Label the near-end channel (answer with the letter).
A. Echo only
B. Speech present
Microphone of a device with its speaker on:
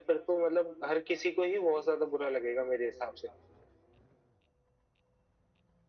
A